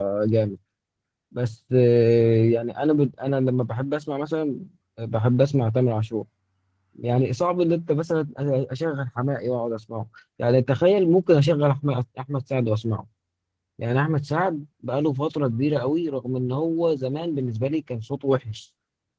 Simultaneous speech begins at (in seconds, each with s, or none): none